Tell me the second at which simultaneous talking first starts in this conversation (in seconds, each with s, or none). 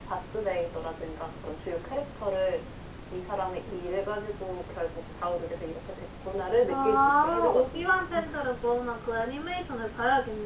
6.7 s